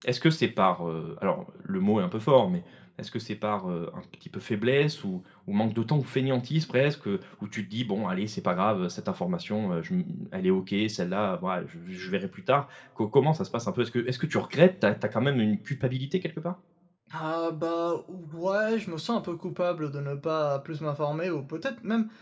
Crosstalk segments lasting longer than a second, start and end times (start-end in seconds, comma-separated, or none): none